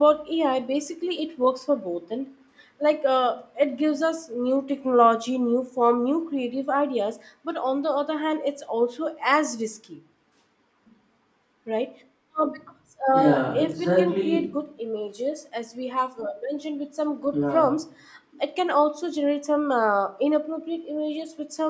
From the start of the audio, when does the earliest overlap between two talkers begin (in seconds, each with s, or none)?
13.1 s